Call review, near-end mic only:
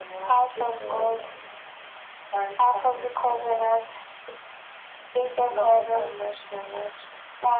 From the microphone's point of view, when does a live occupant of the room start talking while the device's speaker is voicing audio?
0.5 s

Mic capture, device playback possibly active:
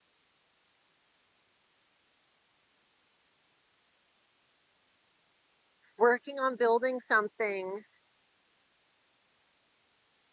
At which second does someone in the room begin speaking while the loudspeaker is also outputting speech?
6.0 s

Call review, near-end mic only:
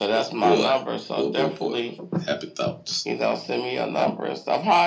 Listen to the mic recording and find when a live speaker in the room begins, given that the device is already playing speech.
none

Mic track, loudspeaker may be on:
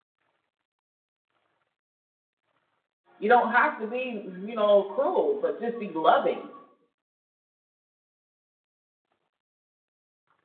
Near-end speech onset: 3.2 s

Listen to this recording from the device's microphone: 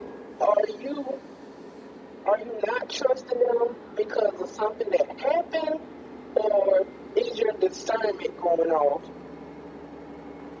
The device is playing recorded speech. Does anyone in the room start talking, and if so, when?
none

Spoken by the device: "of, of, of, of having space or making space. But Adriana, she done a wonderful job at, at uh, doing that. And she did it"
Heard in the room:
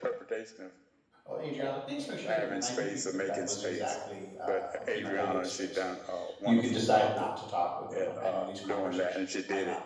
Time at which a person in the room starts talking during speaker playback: 1.3 s

